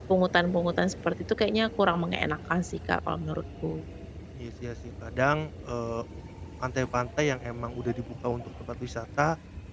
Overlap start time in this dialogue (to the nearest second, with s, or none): none